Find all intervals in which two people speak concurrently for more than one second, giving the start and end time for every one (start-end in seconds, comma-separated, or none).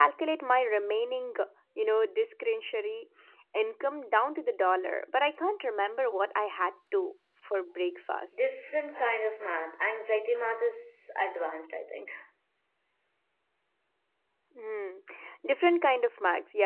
none